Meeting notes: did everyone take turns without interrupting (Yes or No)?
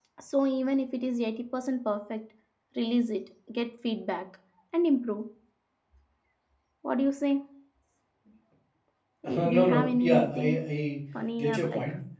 No